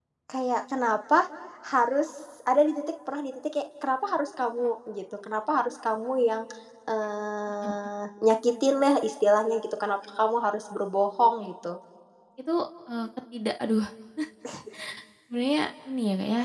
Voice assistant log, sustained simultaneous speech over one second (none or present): none